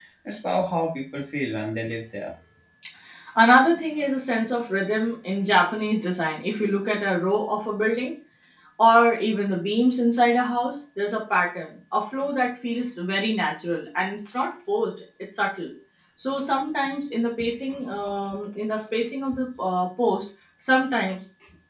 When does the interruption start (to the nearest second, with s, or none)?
none